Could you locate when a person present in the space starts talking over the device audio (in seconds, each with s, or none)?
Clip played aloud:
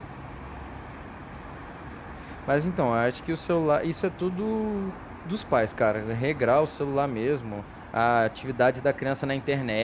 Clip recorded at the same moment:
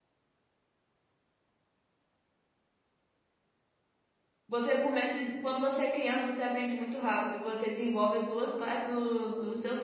4.5 s